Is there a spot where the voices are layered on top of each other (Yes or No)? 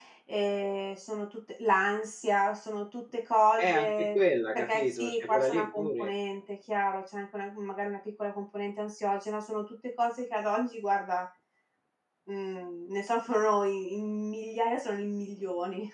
Yes